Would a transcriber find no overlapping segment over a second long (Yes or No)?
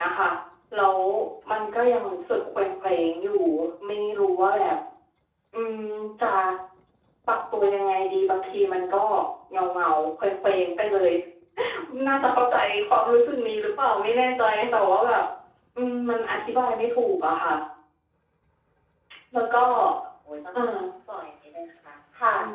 Yes